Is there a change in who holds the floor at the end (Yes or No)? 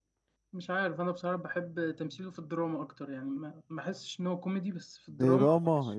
Yes